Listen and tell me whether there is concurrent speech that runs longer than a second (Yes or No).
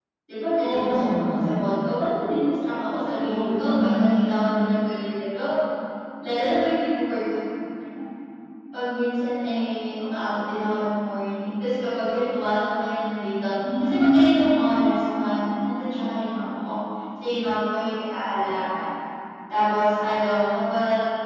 Yes